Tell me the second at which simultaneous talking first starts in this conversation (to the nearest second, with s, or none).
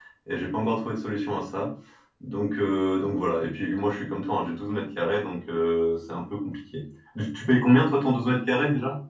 none